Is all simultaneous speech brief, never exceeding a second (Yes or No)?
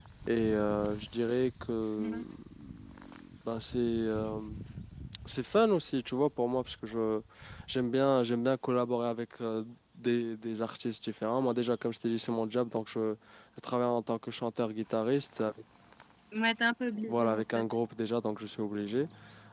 Yes